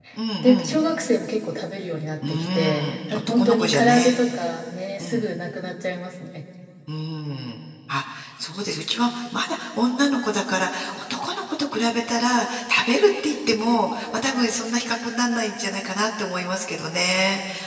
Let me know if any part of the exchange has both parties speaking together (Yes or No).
Yes